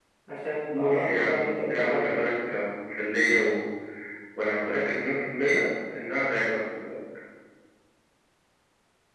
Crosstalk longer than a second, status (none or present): present